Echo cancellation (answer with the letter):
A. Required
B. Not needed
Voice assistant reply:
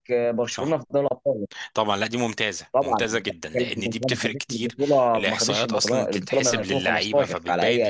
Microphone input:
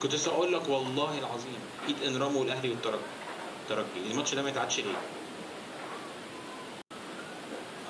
B